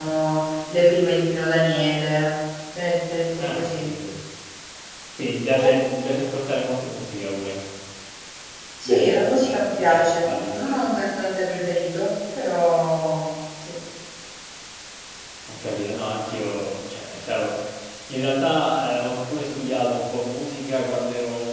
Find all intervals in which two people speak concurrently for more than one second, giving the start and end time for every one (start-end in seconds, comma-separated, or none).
8.8-10.8